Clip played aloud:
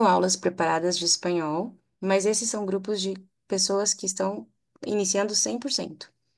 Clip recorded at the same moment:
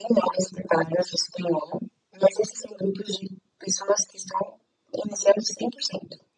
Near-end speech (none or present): none